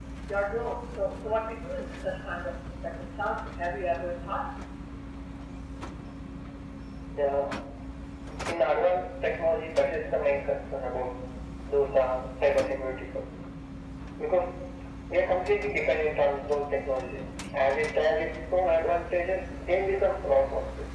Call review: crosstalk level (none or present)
none